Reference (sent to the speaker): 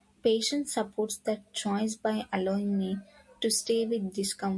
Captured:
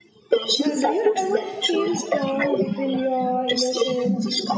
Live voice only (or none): Uh, do you ever feel torn between your innocence